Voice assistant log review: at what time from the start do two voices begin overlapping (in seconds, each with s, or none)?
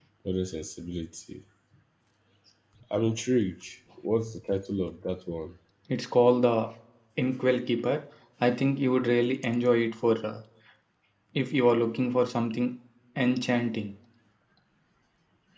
none